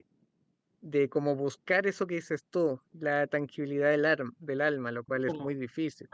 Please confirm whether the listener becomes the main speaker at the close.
Yes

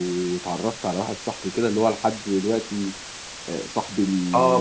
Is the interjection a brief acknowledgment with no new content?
No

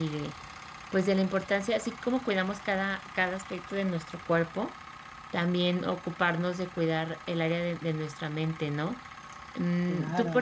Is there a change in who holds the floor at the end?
No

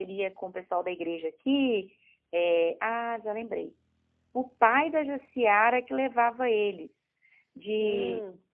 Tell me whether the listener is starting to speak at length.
No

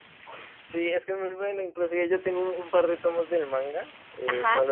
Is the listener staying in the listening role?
Yes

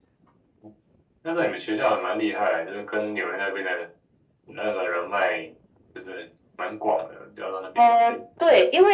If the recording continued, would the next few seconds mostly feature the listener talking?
Yes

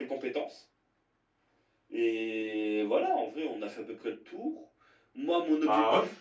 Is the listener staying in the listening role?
Yes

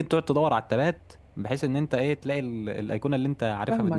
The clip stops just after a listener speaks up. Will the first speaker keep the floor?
No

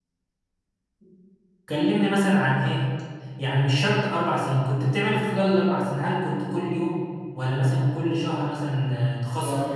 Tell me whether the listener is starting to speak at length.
Yes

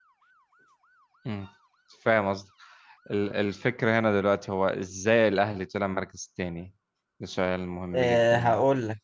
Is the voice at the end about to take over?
Yes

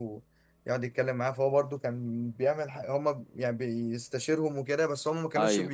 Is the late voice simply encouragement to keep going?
Yes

